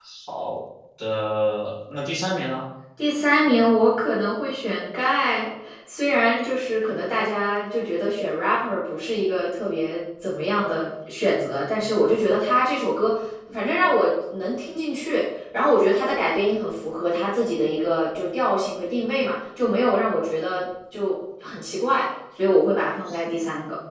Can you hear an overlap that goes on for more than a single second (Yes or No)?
No